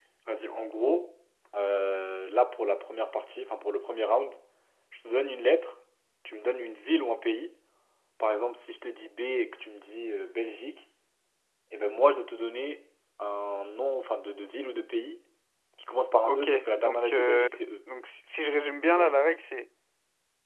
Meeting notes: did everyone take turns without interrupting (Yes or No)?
No